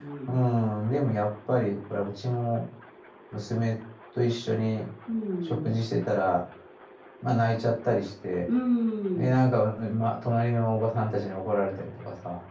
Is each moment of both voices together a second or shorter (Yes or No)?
Yes